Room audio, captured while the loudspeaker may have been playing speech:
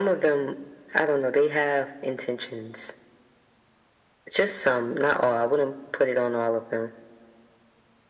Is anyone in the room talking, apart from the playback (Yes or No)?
No